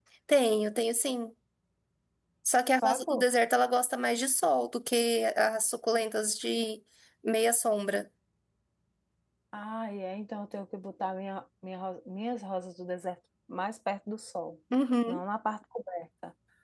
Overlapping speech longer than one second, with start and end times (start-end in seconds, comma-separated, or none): none